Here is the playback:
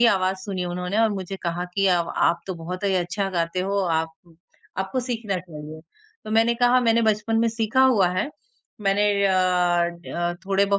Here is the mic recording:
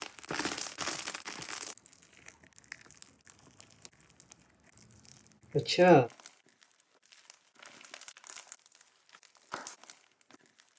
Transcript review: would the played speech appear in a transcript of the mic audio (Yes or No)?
No